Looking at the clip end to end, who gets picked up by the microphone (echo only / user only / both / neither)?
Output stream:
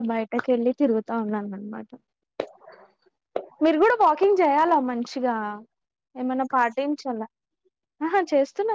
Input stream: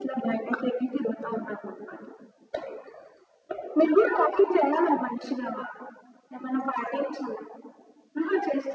echo only